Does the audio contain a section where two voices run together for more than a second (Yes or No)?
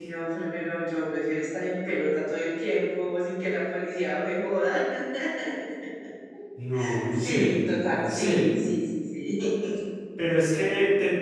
Yes